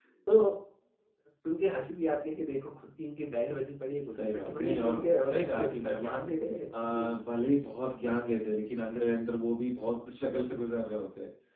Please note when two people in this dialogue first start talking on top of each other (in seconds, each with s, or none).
4.1 s